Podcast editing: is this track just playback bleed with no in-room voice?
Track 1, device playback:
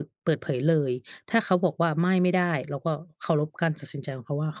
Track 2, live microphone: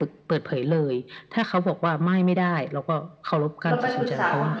No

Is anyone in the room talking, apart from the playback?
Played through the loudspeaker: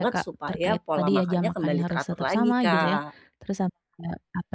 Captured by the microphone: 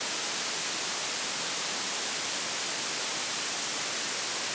No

